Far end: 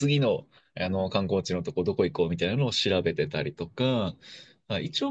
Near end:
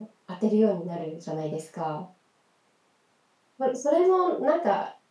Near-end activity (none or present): present